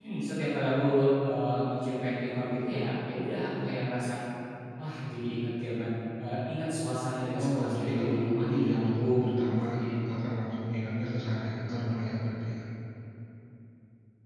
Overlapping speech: Yes, from 7.3 s

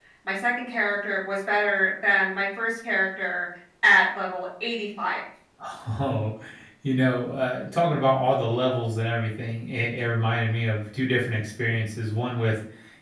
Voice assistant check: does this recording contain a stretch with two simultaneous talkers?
No

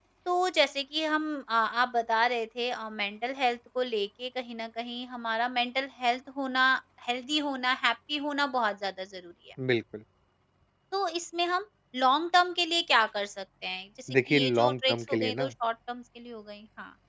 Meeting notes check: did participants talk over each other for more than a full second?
Yes, from 14.1 s

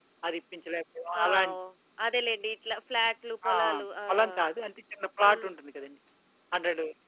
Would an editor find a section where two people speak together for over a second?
No

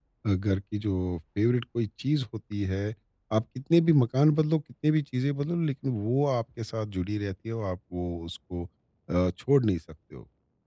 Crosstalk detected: No

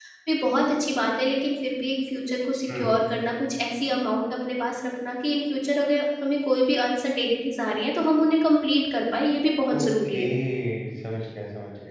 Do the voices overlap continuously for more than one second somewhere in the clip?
No

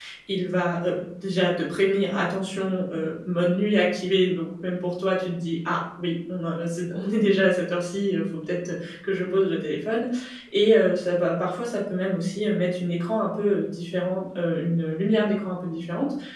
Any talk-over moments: No

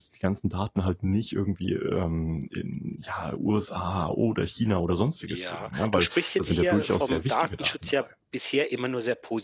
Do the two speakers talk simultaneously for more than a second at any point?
Yes, from 5.3 s

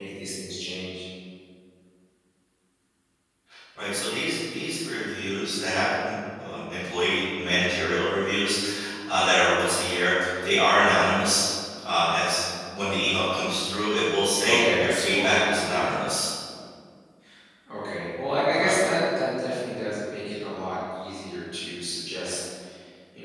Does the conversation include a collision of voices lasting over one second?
Yes, from 14.4 s

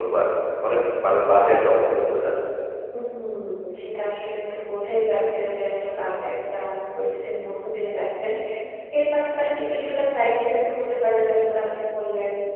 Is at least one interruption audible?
No

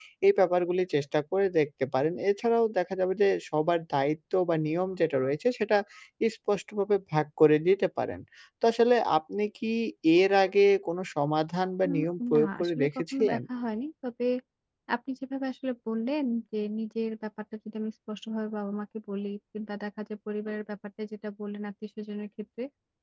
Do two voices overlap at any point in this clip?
Yes, from 11.8 s

